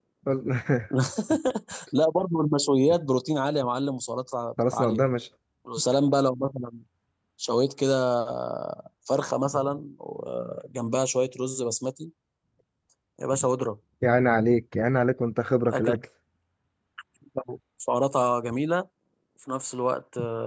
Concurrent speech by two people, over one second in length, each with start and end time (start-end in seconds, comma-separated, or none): none